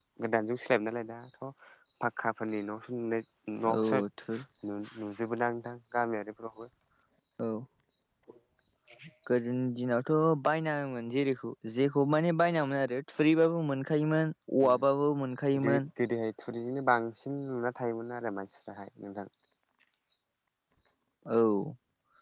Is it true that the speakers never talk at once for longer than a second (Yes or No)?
Yes